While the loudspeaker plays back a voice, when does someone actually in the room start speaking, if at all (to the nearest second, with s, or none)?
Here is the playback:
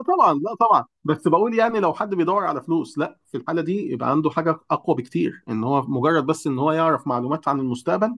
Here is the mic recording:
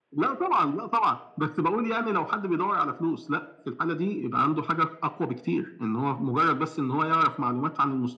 none